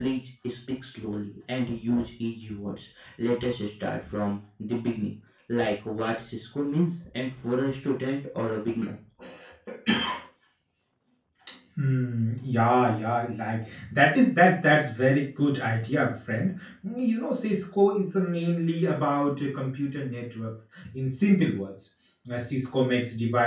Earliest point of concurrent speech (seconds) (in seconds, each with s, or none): none